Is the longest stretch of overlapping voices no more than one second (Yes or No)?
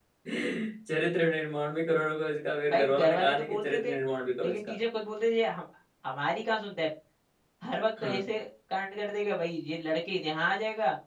No